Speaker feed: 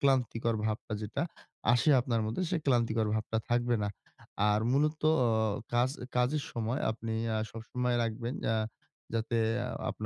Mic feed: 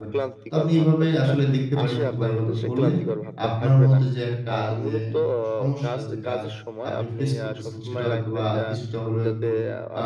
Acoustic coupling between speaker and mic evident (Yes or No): Yes